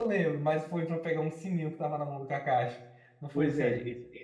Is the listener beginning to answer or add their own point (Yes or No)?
Yes